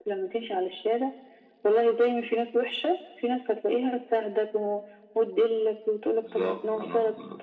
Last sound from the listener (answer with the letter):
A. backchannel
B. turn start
A